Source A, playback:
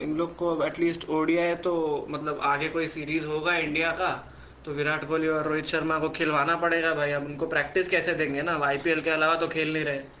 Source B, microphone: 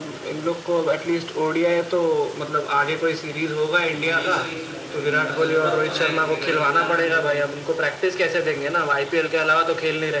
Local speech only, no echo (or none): हाँ, ये सही किया भाई इनका ज़रूरत तो है क्योंकि भाई जितना भी बोल लो